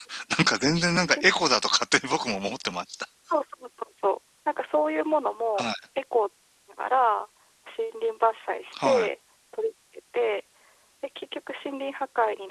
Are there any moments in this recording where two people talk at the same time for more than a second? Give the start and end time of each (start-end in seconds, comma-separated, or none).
none